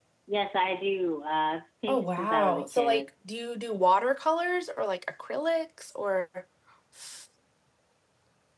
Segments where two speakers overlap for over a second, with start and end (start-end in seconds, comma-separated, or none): 1.9-3.1